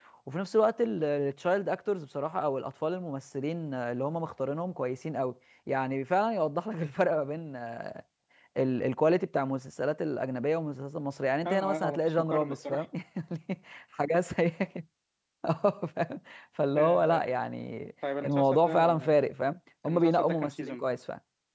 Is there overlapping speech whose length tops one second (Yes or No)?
Yes